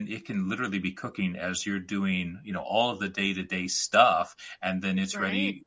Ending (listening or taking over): listening